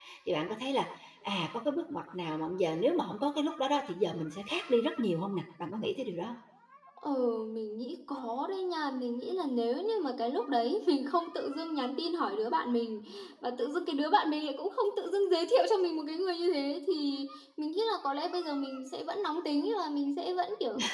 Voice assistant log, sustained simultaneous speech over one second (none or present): none